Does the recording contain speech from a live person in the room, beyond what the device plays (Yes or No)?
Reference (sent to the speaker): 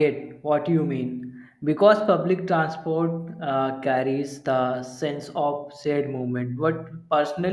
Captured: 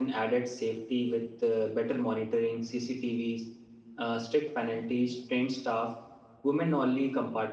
Yes